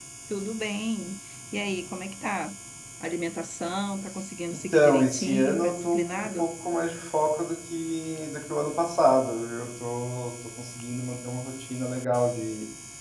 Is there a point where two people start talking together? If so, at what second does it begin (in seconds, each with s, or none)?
4.5 s